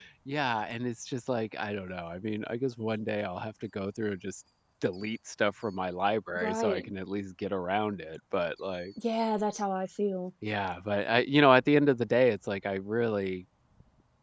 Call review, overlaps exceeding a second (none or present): none